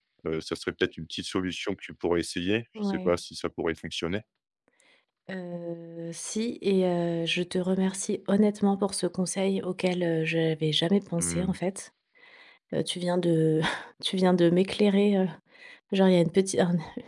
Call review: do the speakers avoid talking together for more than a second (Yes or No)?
Yes